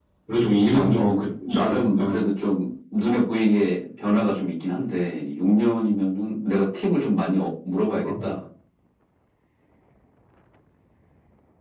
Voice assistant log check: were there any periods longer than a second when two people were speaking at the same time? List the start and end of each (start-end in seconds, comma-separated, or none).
0.7-2.2